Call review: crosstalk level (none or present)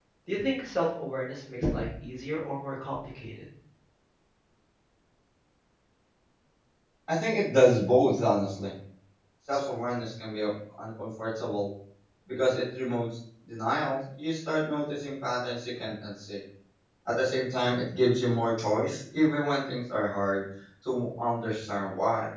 none